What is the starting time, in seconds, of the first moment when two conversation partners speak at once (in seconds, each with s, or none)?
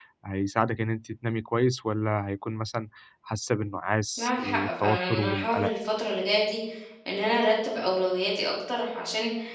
4.2 s